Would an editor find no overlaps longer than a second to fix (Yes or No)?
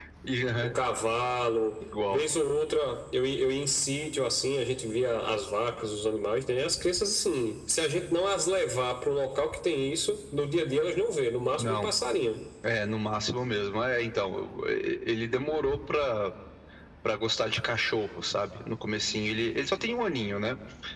Yes